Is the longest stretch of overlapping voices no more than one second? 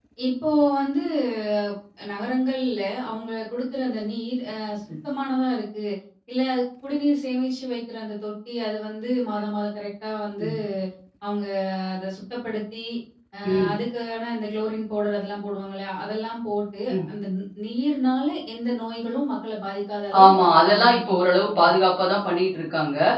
No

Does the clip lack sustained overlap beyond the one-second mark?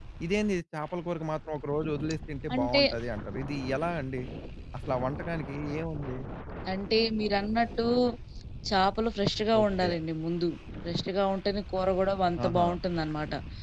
Yes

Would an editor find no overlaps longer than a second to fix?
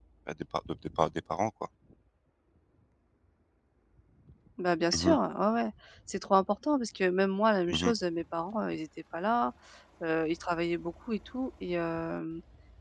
Yes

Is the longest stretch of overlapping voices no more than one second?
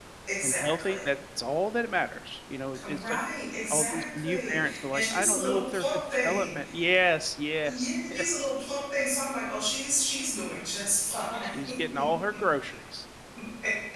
No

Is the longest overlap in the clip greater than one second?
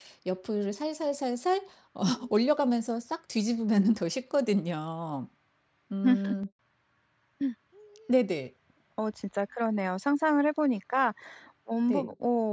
No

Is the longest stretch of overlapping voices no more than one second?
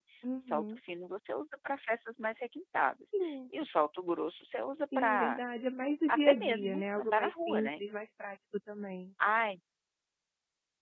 No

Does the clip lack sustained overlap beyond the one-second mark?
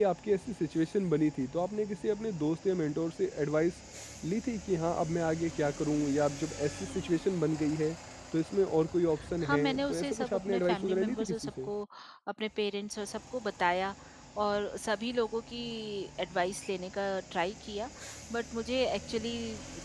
No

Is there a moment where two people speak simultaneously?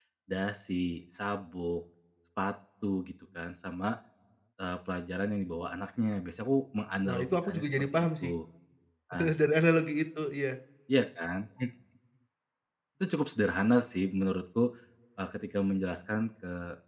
Yes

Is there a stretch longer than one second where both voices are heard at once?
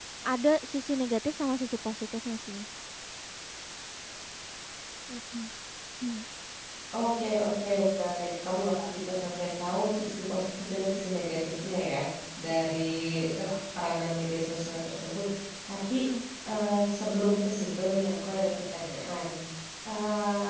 No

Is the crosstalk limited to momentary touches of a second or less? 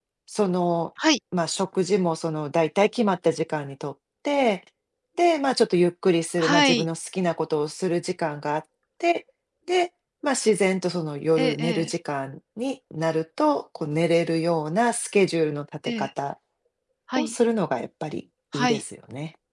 Yes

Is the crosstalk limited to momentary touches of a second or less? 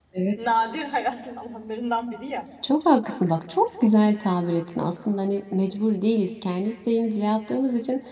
Yes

